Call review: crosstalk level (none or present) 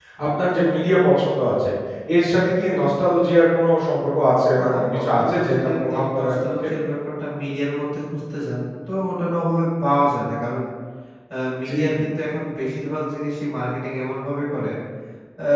present